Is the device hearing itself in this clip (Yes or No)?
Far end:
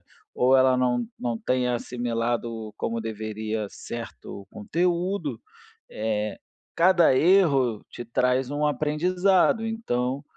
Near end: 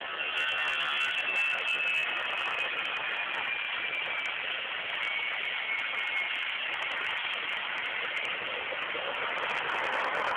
No